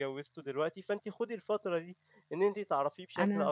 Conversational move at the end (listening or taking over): listening